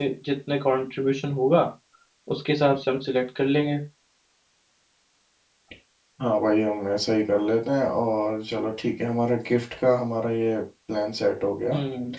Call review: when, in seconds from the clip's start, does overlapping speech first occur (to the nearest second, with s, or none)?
none